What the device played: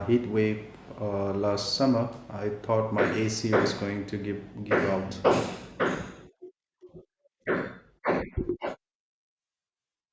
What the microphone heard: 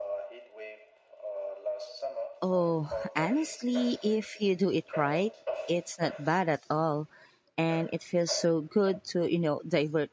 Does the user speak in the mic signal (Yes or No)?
Yes